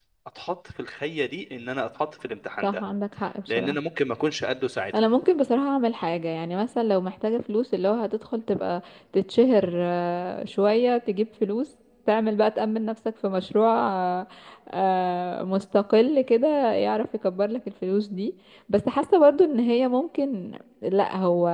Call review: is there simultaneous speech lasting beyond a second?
No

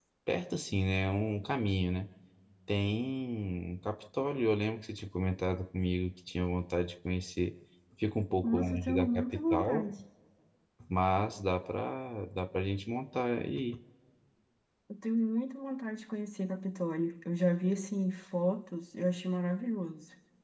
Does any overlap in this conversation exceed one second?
Yes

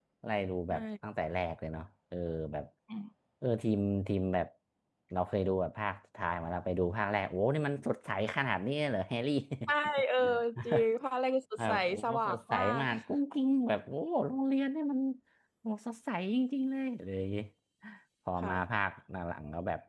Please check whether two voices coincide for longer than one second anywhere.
Yes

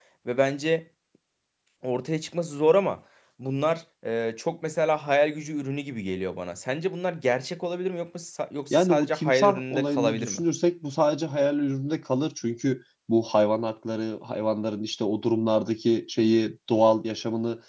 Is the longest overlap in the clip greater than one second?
Yes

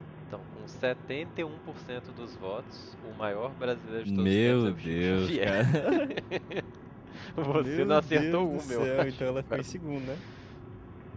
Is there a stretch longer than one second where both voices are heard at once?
Yes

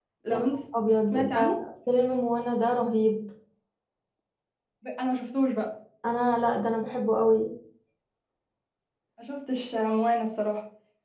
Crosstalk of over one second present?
No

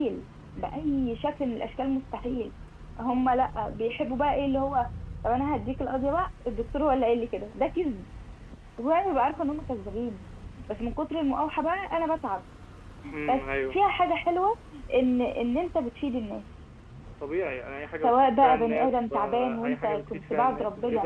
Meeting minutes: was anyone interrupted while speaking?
Yes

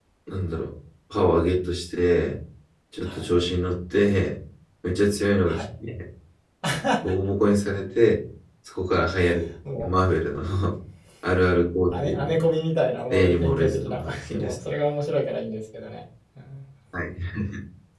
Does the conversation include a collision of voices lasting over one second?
Yes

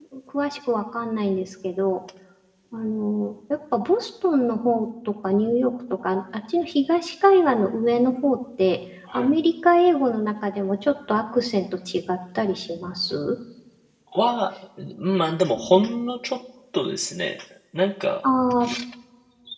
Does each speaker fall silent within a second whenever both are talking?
Yes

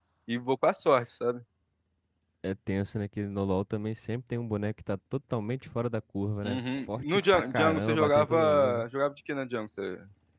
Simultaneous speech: Yes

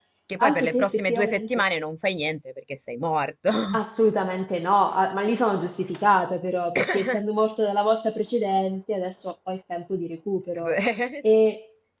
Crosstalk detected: Yes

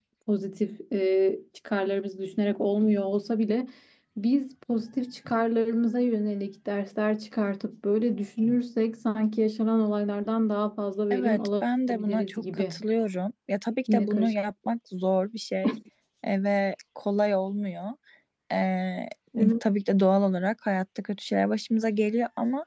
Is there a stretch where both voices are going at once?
Yes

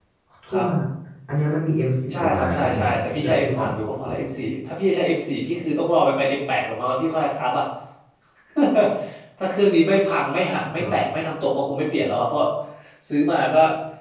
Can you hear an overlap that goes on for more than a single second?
Yes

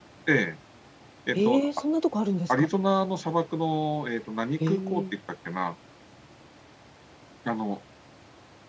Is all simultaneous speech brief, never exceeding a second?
Yes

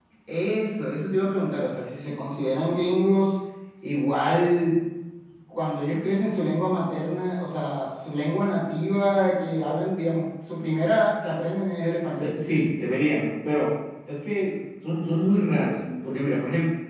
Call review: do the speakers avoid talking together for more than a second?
Yes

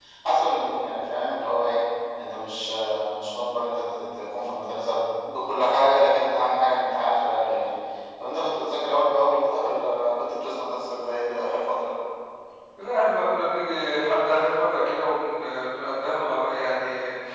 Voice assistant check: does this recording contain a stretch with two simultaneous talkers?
No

